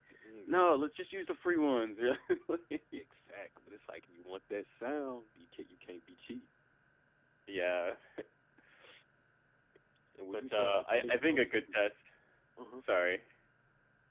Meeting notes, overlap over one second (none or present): present